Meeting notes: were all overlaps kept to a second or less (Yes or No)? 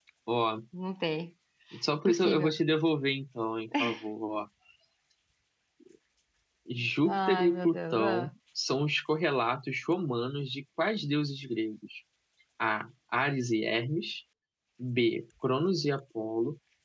No